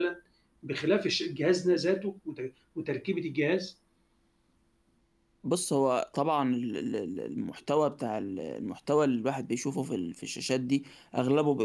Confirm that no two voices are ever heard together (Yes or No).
Yes